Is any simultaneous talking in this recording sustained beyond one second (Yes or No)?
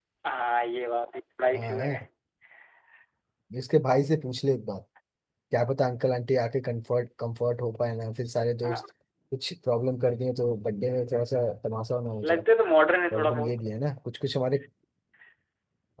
No